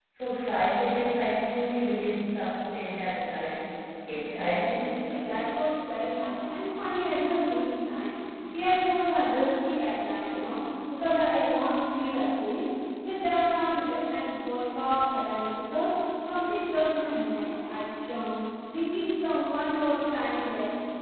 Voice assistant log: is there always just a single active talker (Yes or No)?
No